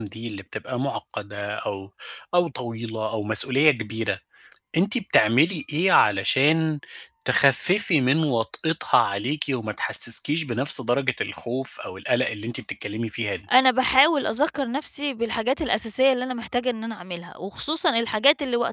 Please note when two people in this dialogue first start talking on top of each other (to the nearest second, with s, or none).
none